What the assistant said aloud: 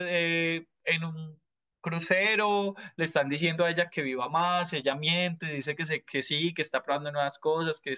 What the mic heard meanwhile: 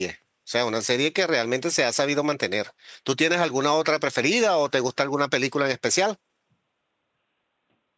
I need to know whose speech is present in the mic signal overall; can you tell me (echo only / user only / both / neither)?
user only